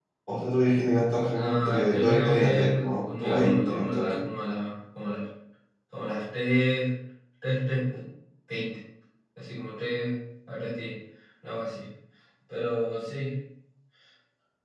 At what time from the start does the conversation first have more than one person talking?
1 s

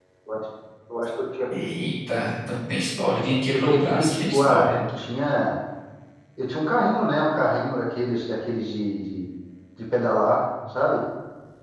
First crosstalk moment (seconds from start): 4 s

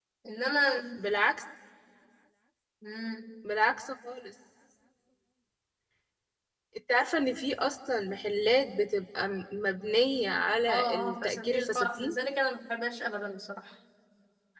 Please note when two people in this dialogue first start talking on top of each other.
11 s

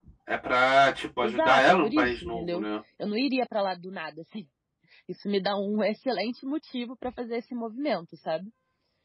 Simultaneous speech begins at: 1 s

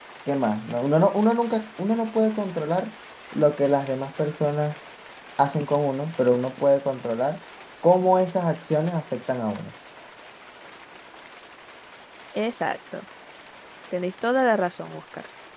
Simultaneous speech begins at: none

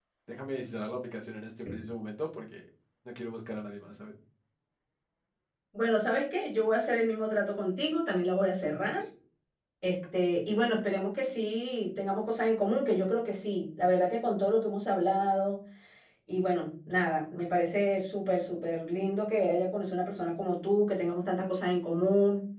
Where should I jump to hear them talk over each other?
none

